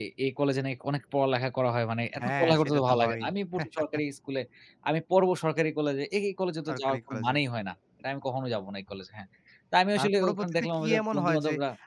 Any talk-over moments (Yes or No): Yes